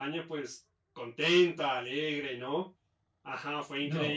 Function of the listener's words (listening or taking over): taking over